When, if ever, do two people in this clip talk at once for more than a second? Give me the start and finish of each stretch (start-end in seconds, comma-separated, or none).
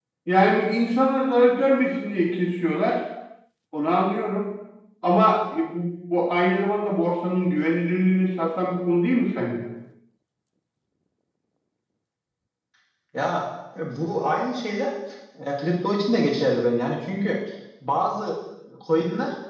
none